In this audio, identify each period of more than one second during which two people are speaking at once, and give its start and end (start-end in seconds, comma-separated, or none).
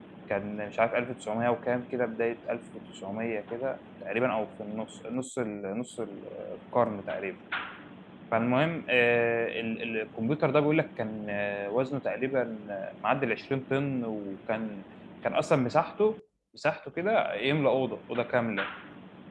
none